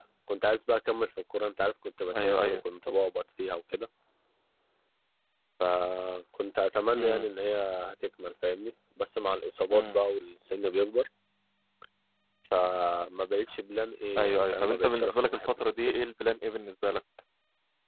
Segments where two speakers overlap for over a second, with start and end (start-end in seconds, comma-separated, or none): 14.2-16.0